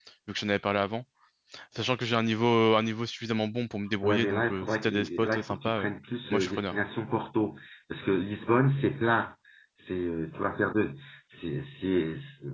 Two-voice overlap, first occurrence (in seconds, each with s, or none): 4.0 s